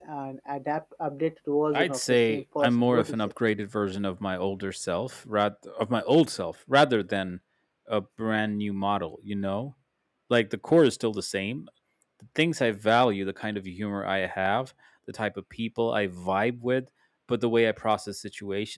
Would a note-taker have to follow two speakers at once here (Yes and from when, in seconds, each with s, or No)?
Yes, from 1.7 s